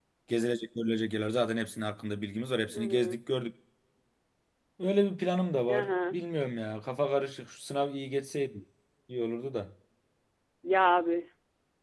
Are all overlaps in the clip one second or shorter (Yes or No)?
Yes